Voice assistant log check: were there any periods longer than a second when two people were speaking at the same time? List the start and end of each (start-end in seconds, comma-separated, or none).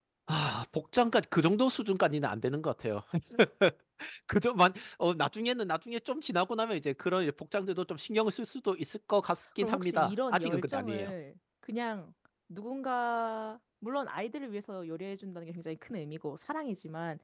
9.6-11.1